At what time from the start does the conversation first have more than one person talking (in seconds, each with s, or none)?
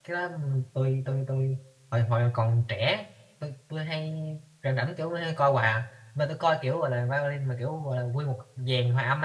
none